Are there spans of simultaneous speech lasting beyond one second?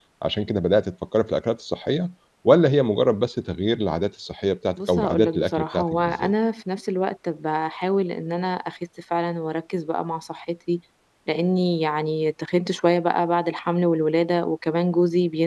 Yes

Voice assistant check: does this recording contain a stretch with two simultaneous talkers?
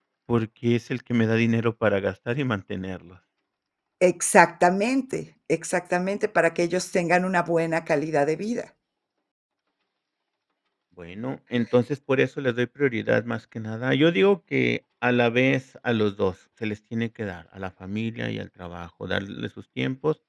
No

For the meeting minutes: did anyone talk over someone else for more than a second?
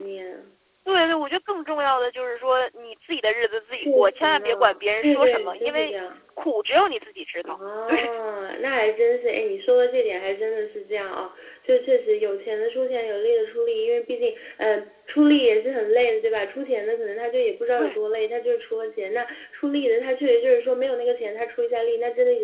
Yes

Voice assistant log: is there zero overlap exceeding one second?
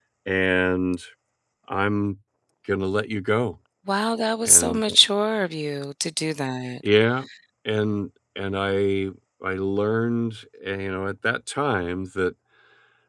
Yes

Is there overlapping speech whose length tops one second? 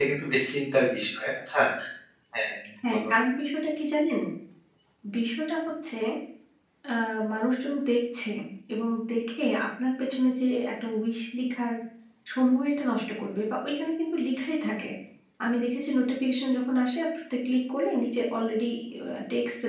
No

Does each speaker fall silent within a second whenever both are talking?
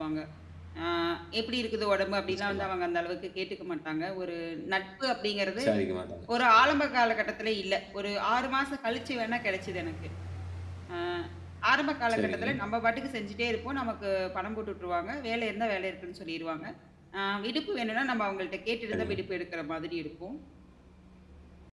Yes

